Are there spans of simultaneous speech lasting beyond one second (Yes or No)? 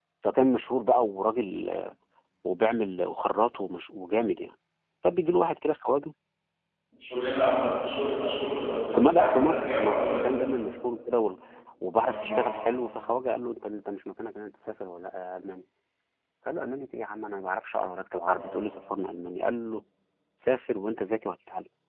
Yes